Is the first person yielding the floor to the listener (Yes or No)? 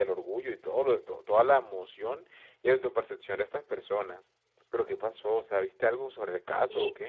Yes